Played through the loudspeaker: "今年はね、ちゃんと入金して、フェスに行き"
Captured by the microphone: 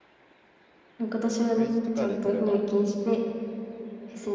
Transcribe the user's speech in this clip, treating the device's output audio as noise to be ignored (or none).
クレジットカードで取れば、